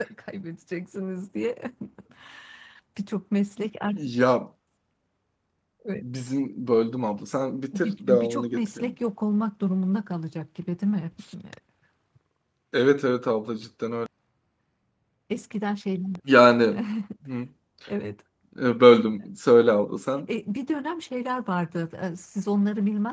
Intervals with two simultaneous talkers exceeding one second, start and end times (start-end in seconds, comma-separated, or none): 7.7-8.9